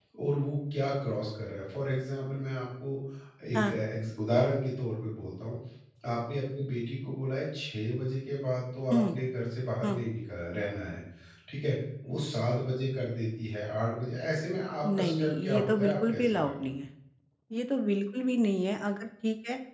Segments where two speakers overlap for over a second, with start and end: 14.8-16.6

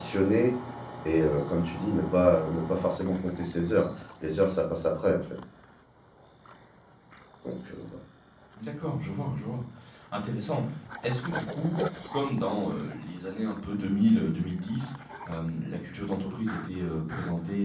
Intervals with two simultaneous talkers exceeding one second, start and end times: none

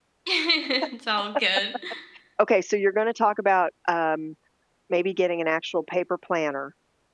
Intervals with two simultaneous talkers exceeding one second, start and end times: none

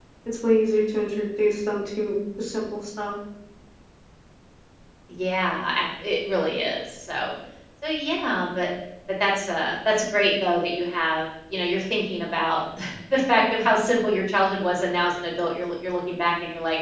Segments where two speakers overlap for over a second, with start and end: none

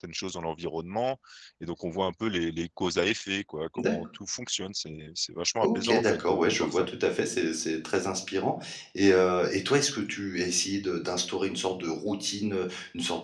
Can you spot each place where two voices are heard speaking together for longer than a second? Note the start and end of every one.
5.6-6.9

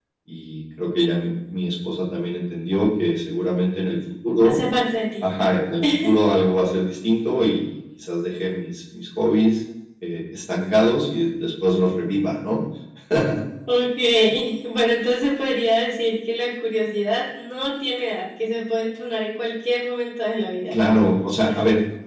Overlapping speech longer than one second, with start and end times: none

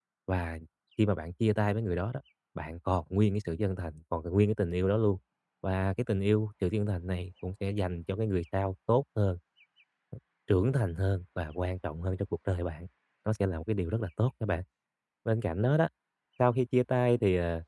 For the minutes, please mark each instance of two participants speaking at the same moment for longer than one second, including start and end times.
none

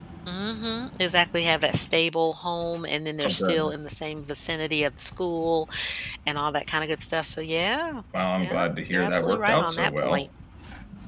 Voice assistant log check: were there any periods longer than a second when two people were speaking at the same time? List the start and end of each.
8.4-10.3

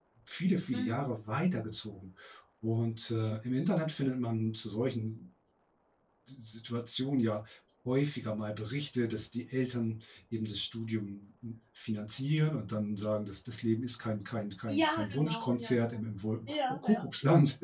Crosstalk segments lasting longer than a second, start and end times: 14.8-16.0

